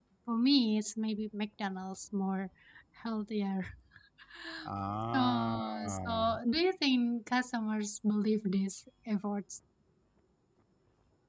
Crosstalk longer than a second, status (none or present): present